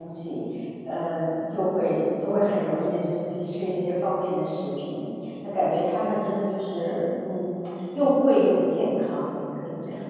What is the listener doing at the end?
taking over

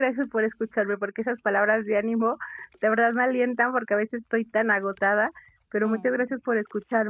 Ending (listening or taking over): listening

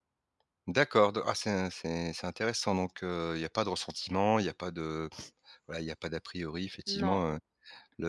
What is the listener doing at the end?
listening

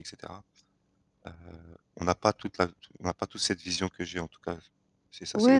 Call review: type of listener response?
taking over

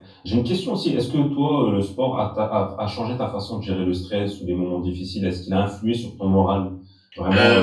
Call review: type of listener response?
taking over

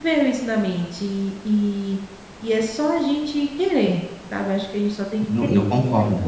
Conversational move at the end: taking over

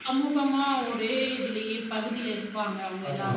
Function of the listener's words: taking over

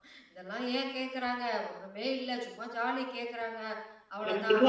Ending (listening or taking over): taking over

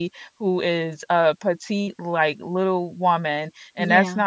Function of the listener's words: listening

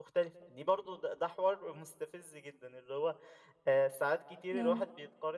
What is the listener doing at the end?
listening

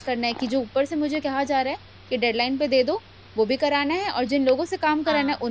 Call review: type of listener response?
listening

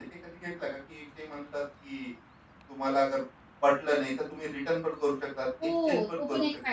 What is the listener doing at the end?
taking over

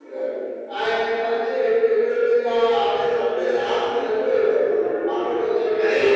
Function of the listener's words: listening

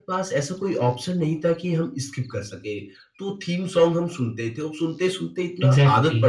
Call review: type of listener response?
listening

